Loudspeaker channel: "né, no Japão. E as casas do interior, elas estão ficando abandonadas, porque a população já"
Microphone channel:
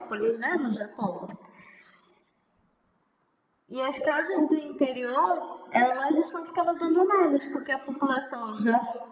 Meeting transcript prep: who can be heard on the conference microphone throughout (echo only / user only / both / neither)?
echo only